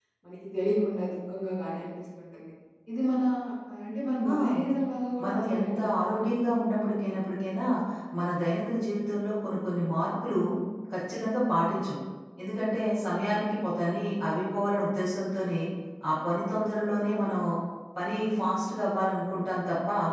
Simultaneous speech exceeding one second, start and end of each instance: 5.2-6.4

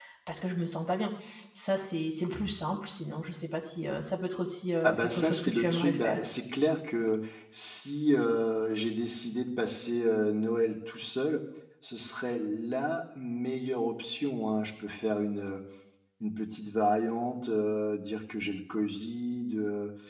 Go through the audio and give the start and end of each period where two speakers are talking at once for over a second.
4.8-6.2

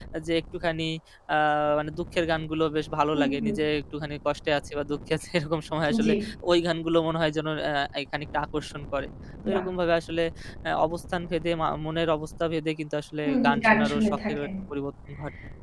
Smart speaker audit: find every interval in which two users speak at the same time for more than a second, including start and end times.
13.2-14.5

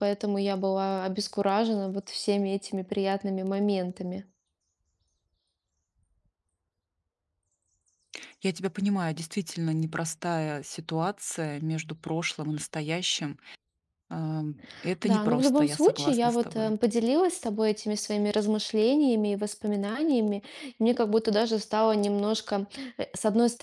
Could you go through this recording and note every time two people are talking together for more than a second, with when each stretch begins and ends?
15.0-16.7

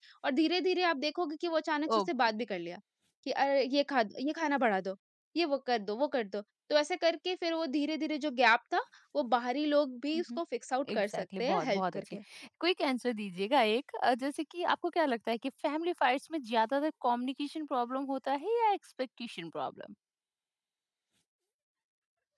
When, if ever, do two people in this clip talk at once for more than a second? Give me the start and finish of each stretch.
10.9-12.1

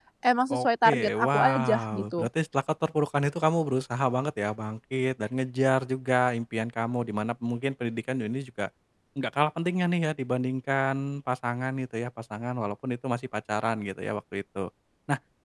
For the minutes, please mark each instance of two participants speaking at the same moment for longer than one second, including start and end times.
0.5-2.3

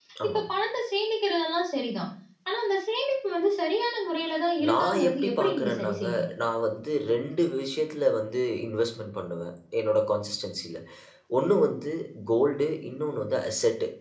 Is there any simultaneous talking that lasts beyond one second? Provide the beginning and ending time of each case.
4.7-6.0

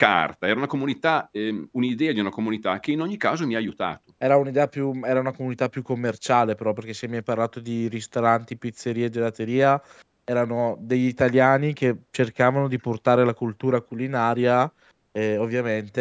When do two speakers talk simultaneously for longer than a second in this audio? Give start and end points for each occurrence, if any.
none

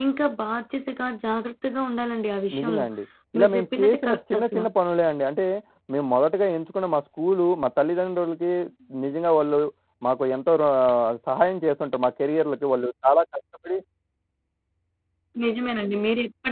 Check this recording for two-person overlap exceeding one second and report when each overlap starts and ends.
3.4-4.6

